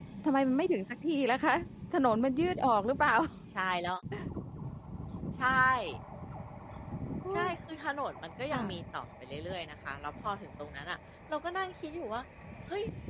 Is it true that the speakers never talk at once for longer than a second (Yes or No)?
Yes